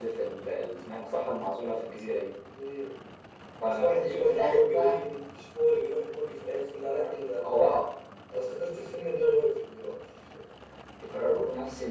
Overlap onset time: 3.6 s

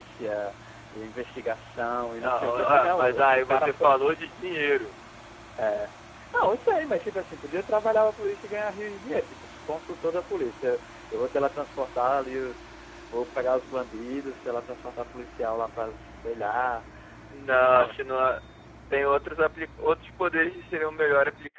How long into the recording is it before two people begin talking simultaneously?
2.2 s

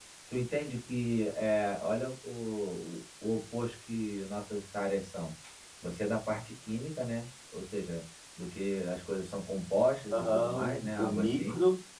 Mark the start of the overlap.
10.1 s

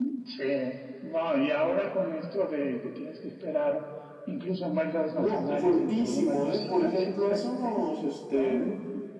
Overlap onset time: 5.1 s

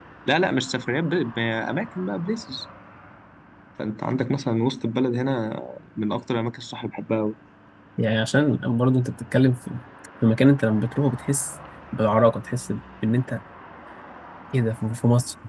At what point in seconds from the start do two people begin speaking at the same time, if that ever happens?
none

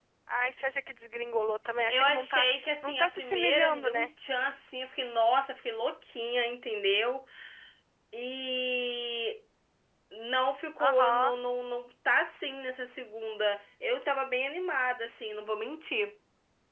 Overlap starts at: 1.9 s

